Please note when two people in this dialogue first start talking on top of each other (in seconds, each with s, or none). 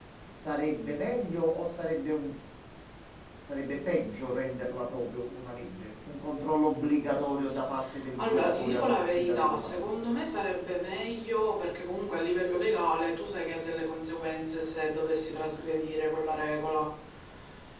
8.2 s